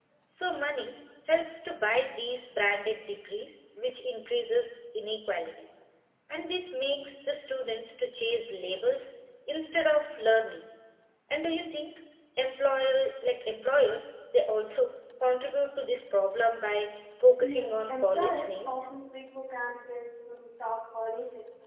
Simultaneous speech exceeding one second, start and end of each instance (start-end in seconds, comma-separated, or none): 17.4-18.9